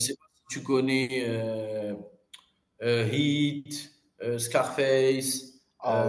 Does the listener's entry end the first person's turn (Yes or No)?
Yes